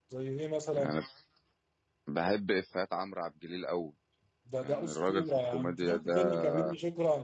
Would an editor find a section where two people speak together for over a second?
Yes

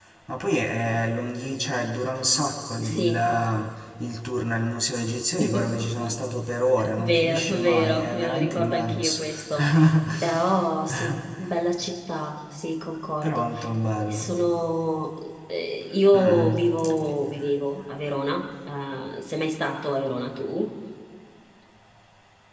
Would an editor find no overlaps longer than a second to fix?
No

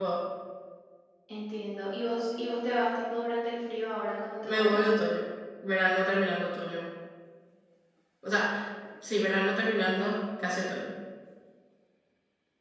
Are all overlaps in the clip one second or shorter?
Yes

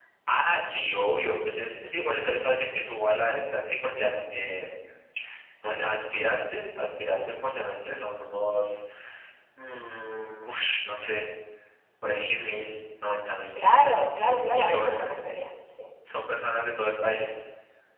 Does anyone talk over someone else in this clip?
Yes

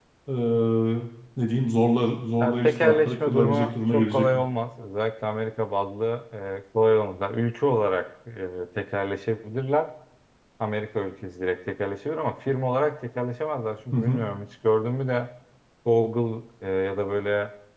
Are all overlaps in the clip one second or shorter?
No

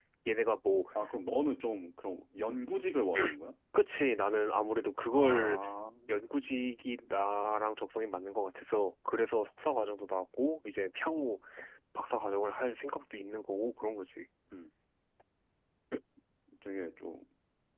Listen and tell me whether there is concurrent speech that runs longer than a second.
No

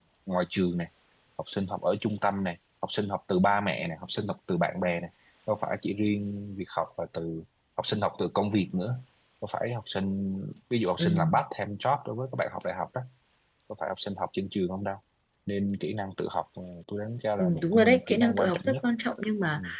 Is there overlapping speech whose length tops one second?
Yes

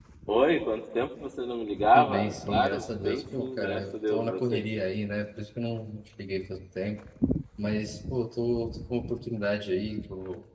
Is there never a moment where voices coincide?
No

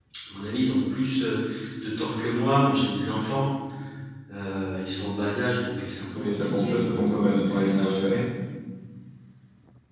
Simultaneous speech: Yes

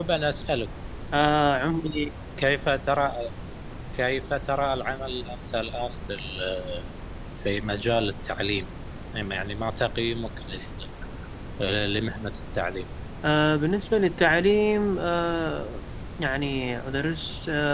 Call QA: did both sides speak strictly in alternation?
Yes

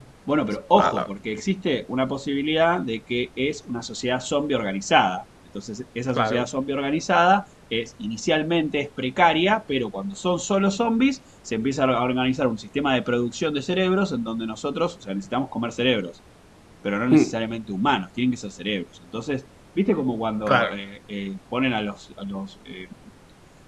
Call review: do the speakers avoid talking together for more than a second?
Yes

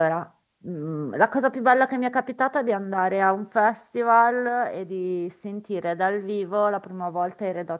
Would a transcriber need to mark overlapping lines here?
No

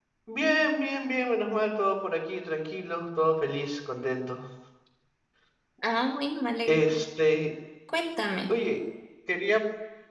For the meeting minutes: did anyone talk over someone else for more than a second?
No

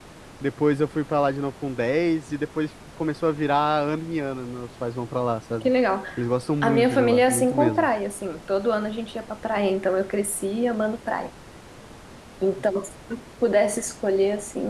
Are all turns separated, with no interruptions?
No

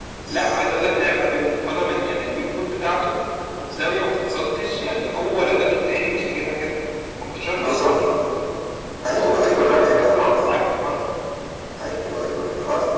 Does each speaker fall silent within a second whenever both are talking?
No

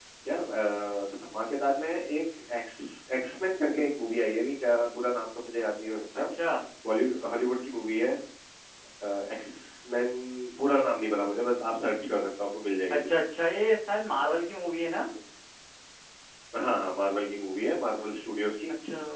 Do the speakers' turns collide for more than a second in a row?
No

